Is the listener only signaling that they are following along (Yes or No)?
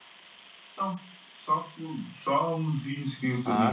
No